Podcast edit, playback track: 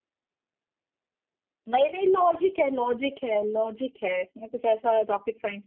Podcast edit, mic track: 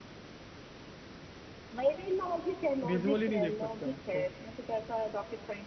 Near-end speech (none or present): present